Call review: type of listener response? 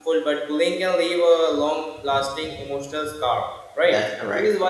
listening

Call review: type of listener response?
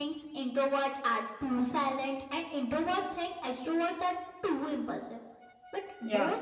listening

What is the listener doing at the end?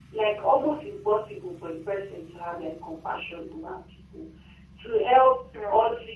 listening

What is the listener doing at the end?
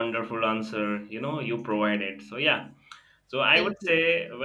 listening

